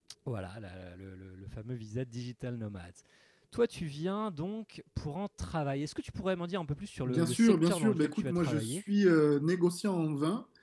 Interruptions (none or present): present